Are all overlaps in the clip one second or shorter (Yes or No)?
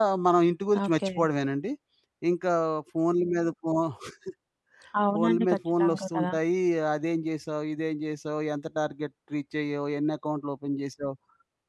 No